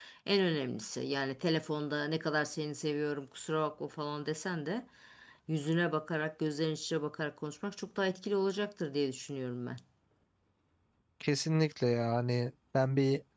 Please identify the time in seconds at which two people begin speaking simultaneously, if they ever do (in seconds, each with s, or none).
none